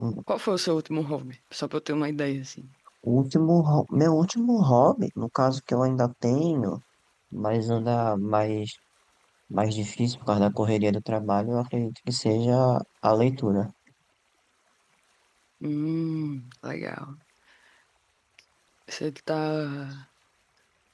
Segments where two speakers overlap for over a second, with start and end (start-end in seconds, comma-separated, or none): none